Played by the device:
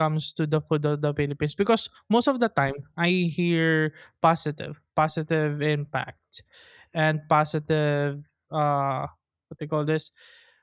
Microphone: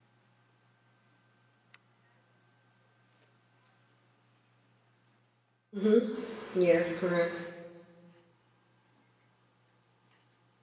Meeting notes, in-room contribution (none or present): present